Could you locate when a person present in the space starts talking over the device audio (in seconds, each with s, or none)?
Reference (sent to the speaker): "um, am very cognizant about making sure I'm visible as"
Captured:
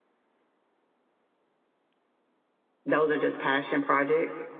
2.8 s